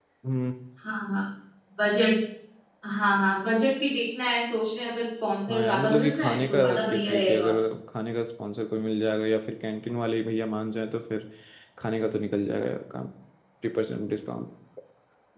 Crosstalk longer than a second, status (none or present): present